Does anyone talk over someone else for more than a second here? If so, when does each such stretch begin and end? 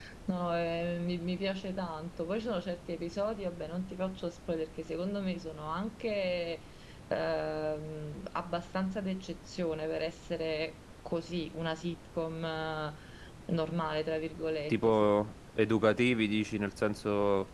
none

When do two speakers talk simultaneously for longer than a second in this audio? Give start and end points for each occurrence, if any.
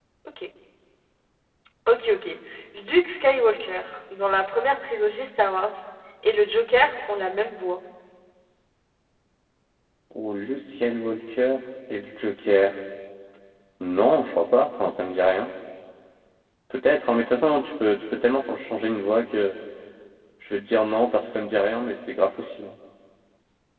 none

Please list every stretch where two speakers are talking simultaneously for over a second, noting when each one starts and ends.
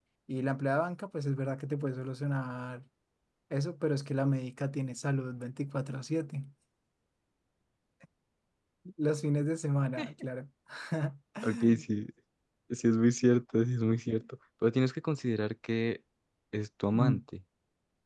none

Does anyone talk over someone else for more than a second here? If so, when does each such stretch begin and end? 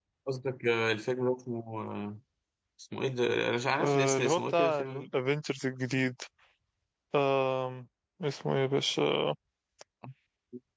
3.8-5.1

